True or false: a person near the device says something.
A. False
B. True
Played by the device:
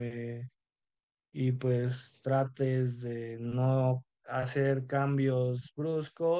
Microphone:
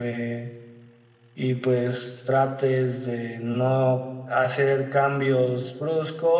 A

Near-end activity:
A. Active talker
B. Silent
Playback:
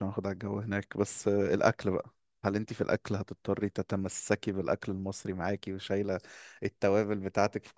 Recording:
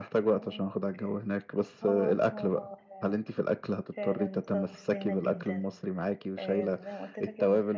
A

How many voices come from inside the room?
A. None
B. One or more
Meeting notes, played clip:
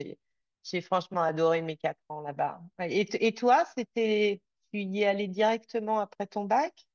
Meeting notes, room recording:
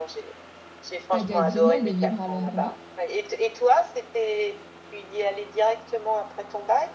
B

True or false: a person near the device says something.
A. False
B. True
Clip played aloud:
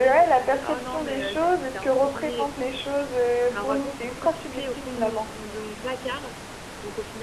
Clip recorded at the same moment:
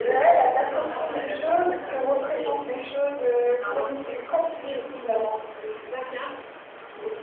B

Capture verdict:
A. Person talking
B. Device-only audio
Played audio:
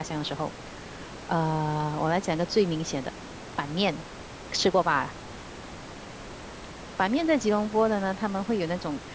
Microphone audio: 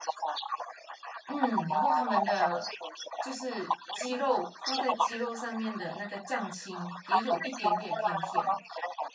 A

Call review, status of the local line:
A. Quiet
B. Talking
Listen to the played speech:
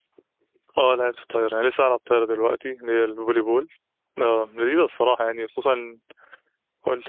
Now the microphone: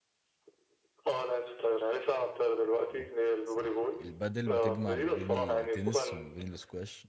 B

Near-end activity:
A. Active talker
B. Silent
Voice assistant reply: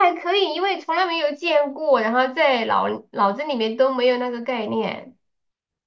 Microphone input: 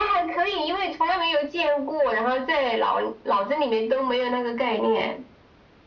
B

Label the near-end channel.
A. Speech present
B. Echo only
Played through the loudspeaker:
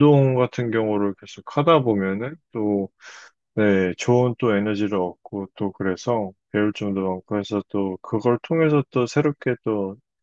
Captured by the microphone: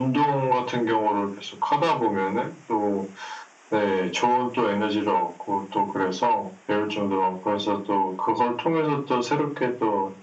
B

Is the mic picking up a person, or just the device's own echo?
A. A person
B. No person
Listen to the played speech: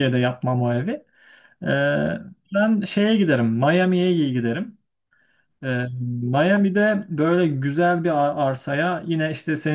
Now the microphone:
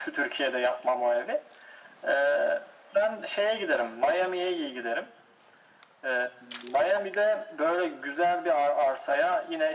B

